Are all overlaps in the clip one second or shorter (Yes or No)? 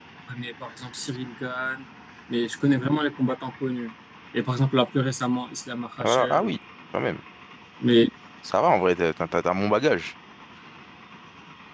Yes